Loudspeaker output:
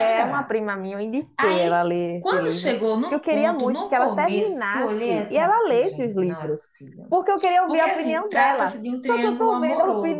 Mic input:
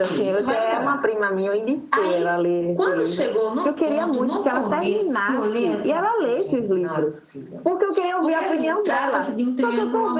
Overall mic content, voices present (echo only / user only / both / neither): echo only